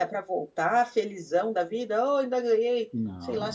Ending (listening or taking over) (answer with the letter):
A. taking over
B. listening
B